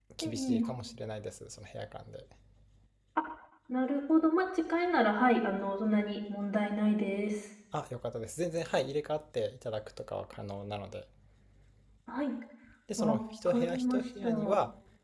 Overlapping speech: Yes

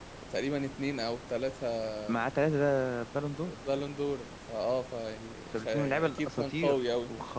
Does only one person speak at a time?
No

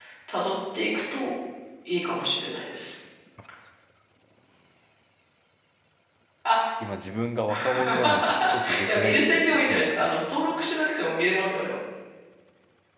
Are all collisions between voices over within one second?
No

